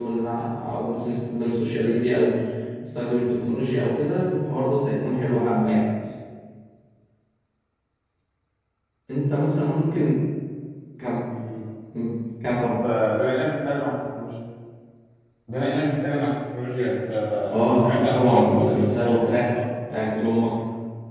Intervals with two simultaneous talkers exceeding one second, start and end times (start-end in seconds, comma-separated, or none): 17.7-19.5